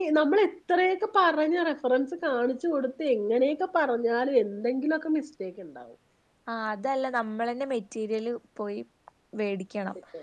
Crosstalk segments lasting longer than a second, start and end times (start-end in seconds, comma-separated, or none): none